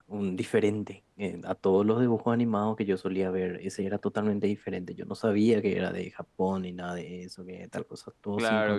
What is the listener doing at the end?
taking over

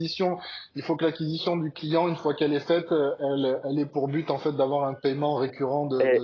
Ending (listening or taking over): taking over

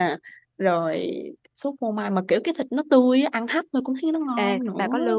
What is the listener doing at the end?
taking over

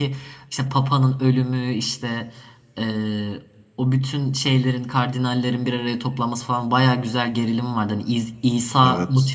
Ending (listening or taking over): listening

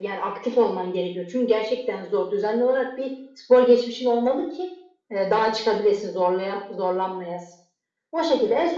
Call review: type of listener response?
listening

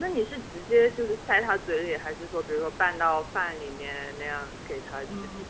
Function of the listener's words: taking over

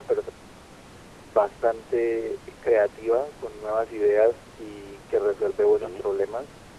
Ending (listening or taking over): listening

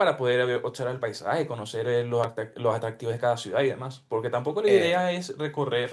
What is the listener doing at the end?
listening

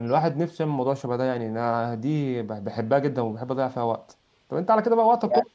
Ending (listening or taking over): listening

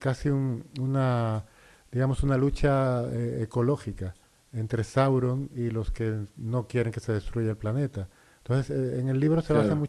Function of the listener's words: listening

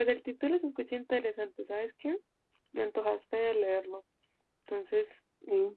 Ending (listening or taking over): taking over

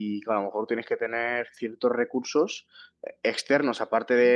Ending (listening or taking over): listening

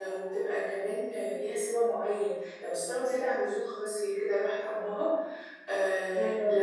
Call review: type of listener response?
listening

